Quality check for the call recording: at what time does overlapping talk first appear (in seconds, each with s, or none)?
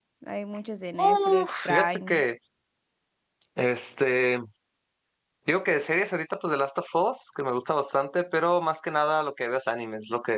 1.0 s